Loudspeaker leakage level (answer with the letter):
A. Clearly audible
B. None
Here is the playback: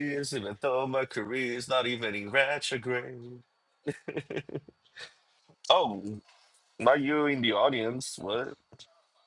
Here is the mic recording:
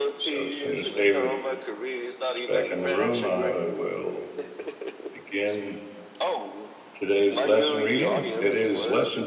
A